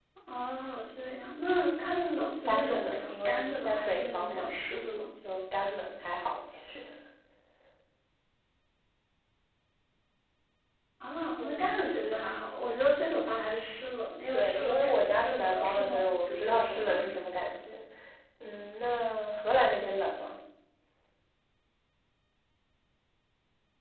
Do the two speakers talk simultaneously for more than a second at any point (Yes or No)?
Yes